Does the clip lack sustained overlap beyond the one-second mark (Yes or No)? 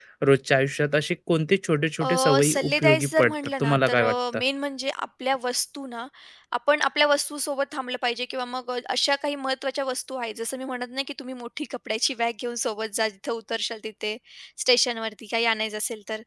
No